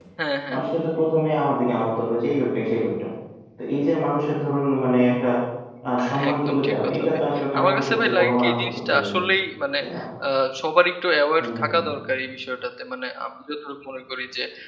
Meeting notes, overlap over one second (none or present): present